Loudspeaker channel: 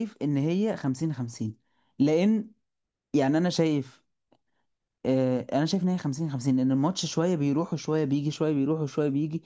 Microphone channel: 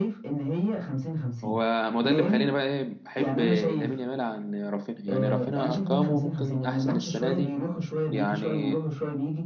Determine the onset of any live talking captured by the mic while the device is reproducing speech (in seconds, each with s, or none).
1.4 s